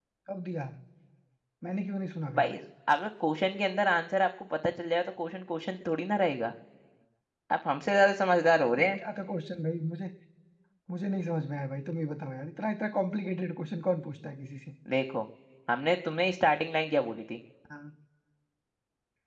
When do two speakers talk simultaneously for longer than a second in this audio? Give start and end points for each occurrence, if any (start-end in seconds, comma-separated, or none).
none